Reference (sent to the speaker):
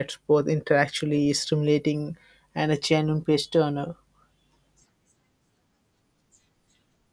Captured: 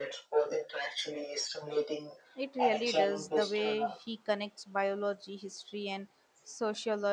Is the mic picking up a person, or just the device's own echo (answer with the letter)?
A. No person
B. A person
B